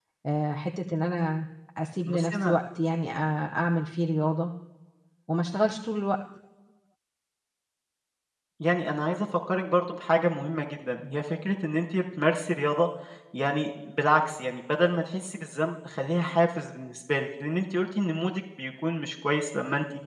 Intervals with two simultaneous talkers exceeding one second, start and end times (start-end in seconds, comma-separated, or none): none